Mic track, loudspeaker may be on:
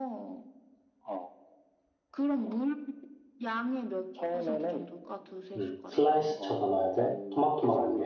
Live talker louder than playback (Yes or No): Yes